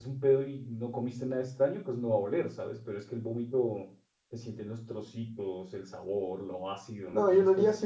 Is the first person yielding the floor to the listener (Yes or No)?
Yes